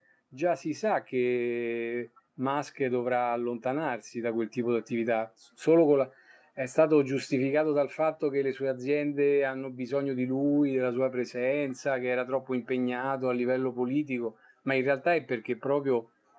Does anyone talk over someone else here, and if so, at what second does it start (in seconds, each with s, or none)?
none